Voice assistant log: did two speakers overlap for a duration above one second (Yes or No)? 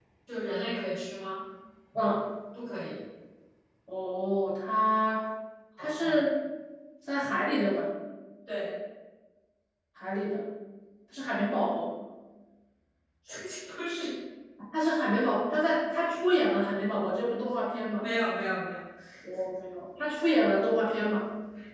No